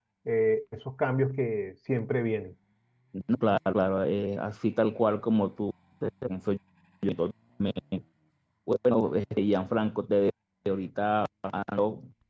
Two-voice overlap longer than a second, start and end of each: none

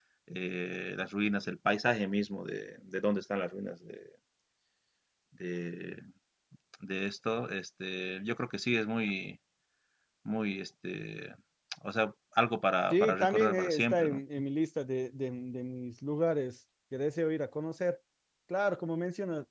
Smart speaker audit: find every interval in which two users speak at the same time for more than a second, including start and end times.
12.9-14.2

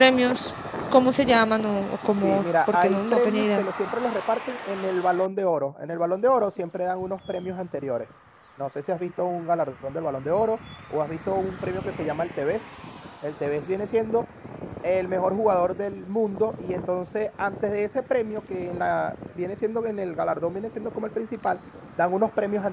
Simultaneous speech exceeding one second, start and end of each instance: 2.2-3.6

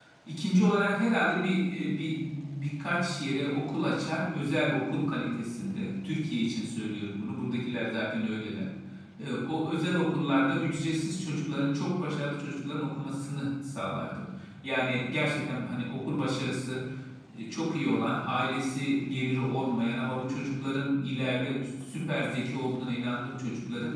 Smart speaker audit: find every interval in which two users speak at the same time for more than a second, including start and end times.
none

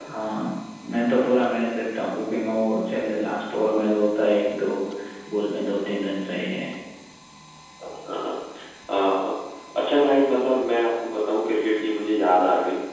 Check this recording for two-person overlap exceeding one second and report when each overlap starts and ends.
none

